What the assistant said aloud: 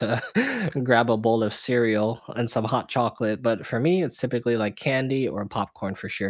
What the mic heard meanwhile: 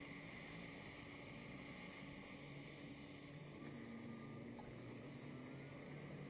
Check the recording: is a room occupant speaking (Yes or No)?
No